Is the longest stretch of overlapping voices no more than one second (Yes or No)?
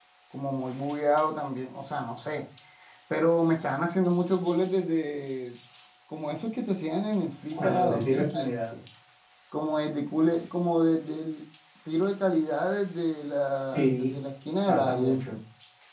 No